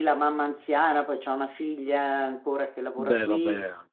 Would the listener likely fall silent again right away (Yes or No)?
Yes